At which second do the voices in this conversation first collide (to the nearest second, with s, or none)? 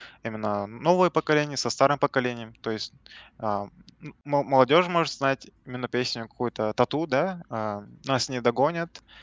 none